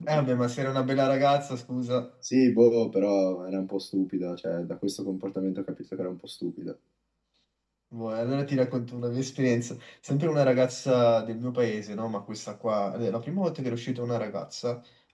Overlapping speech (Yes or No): No